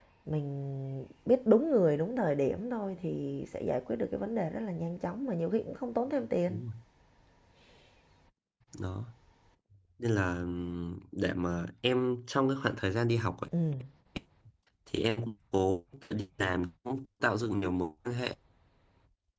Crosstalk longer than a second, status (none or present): none